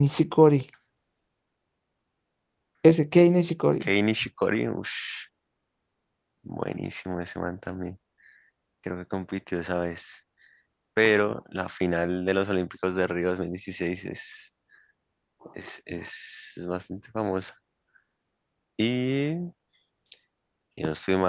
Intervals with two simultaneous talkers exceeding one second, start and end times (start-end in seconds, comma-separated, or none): none